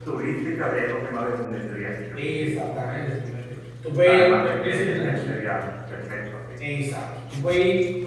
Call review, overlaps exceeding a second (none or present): present